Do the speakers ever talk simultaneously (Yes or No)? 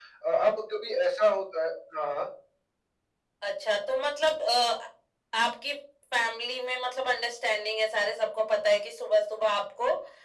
No